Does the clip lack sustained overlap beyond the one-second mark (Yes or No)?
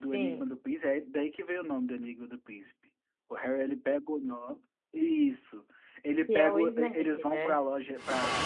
No